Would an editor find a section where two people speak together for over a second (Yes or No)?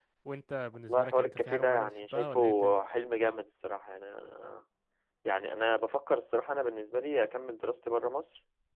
Yes